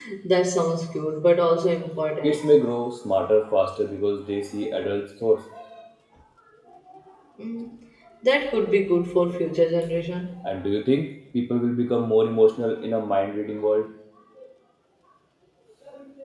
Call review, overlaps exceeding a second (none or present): none